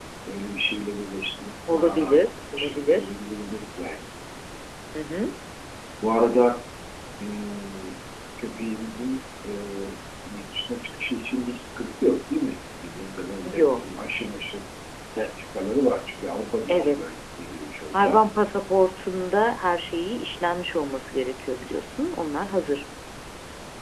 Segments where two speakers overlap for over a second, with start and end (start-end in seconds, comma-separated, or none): 1.7-3.1